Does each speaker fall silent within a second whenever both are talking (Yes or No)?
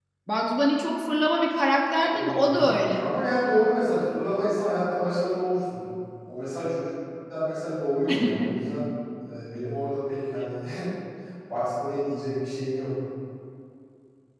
Yes